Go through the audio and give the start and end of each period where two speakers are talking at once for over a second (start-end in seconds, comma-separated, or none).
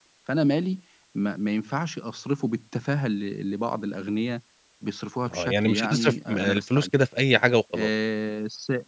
5.3-6.9